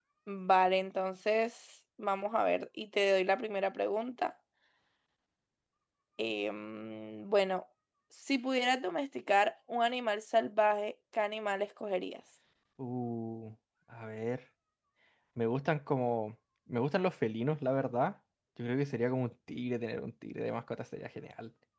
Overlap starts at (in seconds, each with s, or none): none